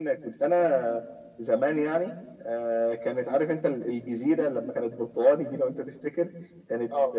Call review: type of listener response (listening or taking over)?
listening